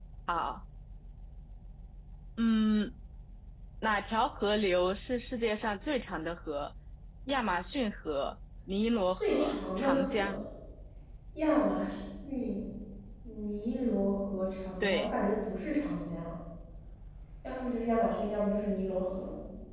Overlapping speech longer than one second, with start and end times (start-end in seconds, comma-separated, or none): 9.1-10.3